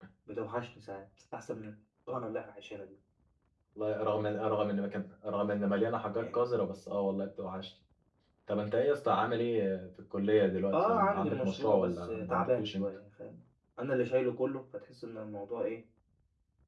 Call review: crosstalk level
present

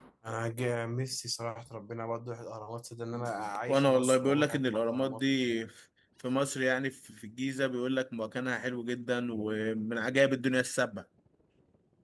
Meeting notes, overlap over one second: present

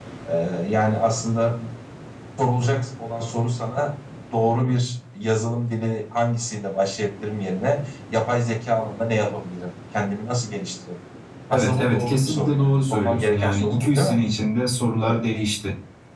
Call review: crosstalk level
present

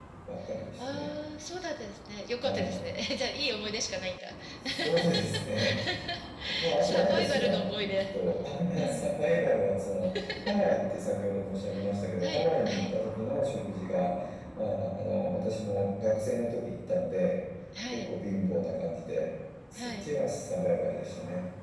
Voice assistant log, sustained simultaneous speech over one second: present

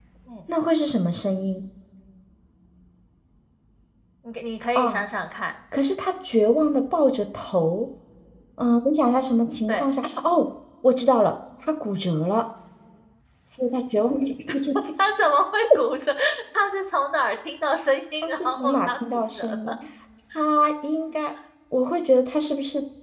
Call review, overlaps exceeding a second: present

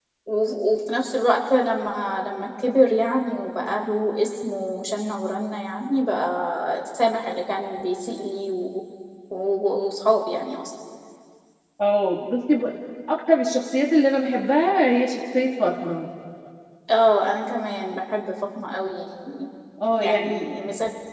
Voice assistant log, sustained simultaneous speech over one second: none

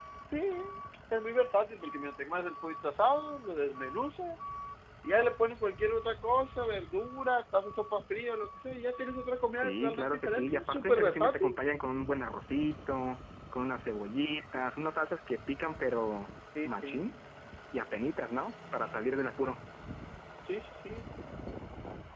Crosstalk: present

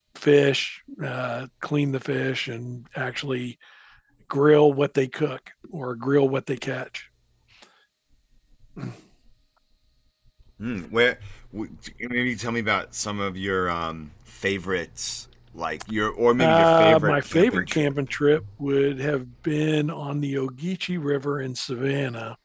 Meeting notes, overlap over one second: present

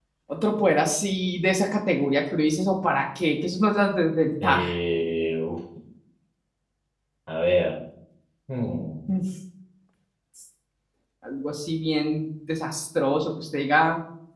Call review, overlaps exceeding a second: none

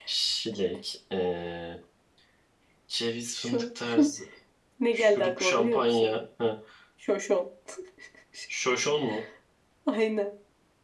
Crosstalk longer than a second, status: present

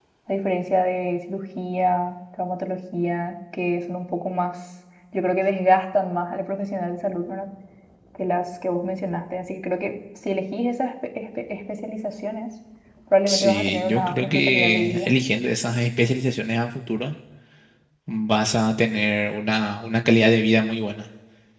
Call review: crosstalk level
present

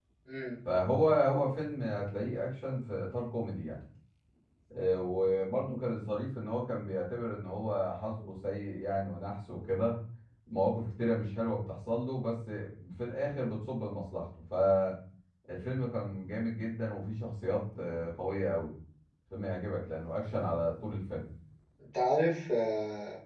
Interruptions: none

